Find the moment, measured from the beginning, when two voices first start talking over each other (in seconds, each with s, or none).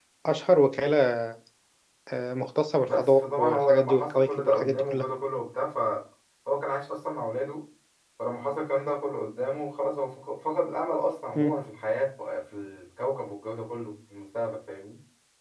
2.9 s